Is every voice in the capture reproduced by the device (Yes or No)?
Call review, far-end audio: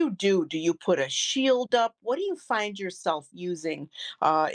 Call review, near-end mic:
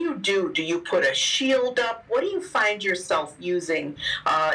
Yes